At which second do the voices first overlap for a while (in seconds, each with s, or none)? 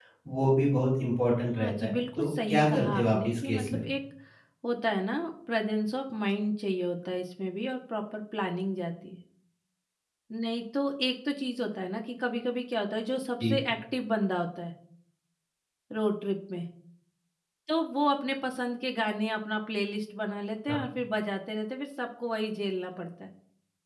1.5 s